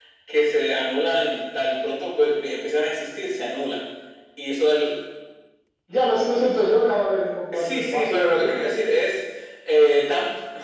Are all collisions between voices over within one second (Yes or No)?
No